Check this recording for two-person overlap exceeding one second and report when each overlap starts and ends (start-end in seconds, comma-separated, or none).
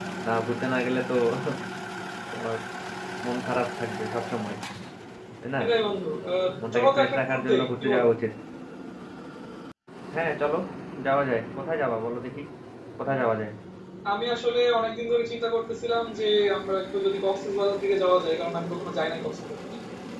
6.7-8.1